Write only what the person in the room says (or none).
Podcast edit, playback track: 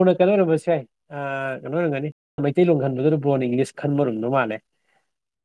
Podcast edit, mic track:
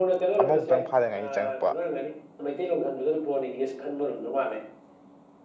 ꯑꯃꯃꯨꯛꯇꯪ ꯐꯥꯗ ꯉꯥꯏꯔꯤ ꯆꯪꯉꯛꯄ